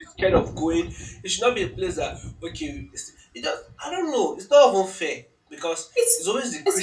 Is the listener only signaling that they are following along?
Yes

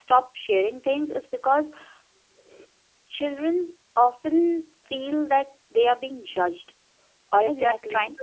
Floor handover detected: No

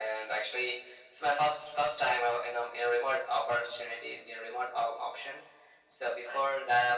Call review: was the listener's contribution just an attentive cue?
Yes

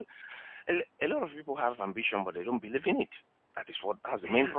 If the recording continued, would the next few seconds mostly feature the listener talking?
Yes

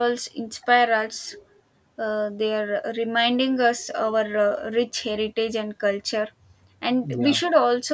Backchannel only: Yes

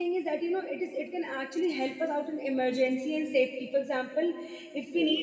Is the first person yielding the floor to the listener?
No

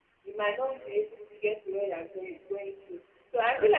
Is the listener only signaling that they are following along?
Yes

